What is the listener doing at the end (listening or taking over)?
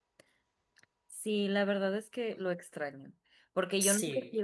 listening